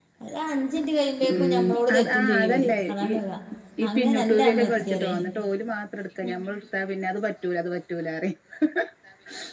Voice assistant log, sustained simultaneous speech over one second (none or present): present